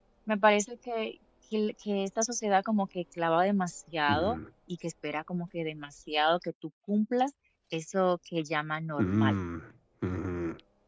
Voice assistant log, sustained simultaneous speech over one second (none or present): none